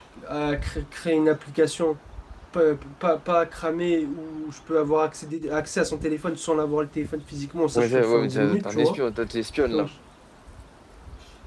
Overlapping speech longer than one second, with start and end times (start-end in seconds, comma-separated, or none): 7.7-9.0